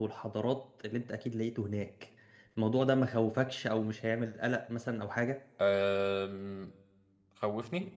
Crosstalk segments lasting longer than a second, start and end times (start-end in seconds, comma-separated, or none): none